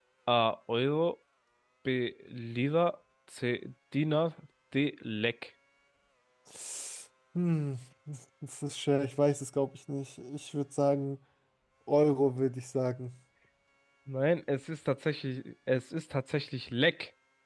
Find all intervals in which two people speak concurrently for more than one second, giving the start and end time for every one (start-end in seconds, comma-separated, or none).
none